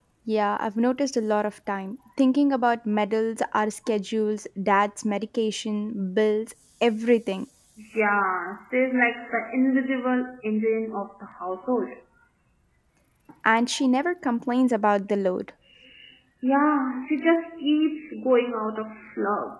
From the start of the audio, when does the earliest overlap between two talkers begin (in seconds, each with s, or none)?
none